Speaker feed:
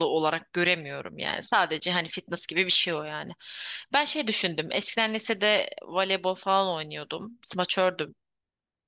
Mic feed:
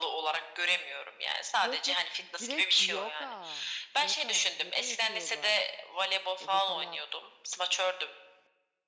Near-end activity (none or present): present